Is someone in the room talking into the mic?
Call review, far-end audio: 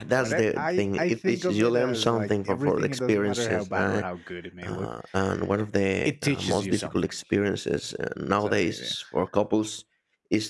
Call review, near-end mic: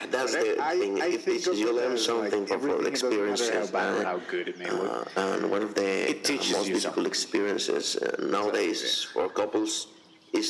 No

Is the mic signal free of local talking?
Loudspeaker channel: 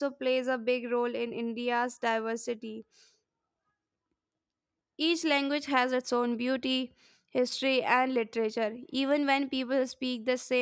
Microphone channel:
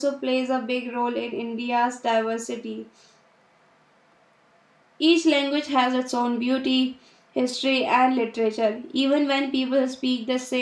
Yes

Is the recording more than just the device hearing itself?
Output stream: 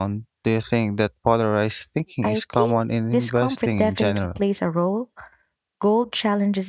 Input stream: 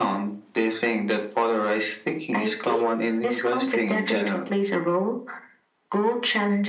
No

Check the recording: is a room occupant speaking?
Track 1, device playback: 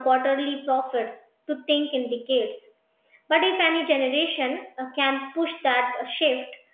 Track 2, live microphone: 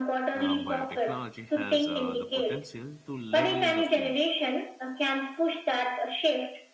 Yes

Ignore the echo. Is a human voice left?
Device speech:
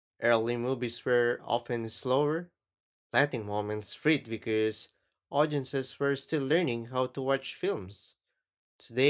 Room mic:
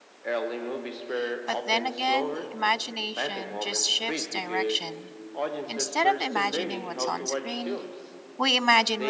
Yes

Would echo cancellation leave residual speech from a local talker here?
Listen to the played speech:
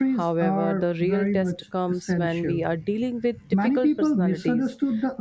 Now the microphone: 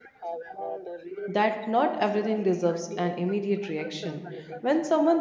Yes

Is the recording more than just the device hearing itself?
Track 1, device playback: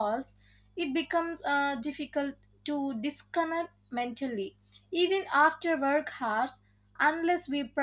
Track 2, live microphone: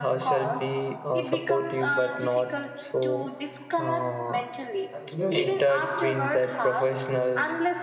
Yes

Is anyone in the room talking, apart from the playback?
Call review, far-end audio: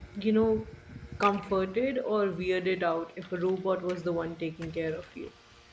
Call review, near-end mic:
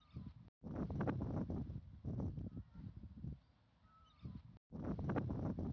No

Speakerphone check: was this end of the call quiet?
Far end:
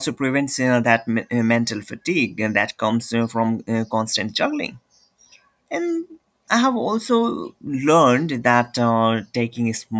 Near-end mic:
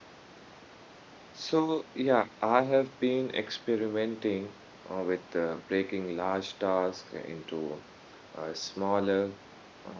No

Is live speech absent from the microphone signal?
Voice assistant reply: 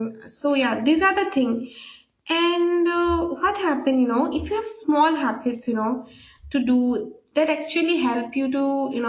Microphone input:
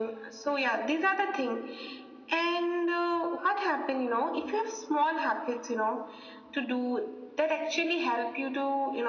Yes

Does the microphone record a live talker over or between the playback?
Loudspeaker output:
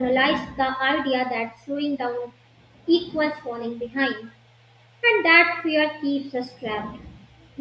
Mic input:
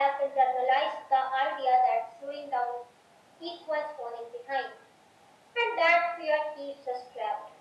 No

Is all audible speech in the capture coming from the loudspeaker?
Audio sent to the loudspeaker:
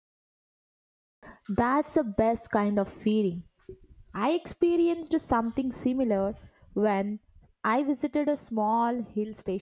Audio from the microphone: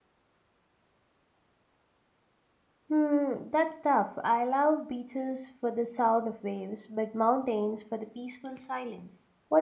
No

